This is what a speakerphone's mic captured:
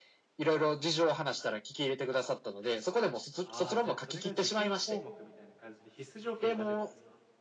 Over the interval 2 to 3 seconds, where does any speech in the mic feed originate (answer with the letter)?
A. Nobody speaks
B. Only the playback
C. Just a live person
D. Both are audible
B